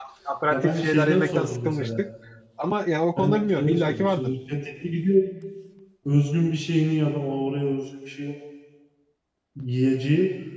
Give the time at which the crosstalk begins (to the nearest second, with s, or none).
1 s